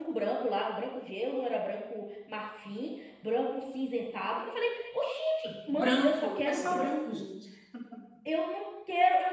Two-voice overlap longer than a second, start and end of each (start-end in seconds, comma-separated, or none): 5.7-7.2